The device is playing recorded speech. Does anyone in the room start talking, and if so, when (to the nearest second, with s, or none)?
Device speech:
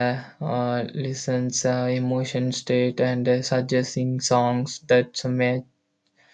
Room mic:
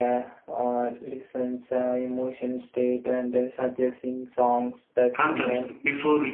5 s